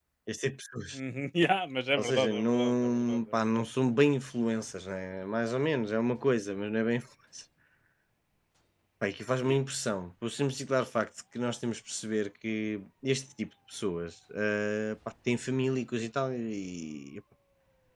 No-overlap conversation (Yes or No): No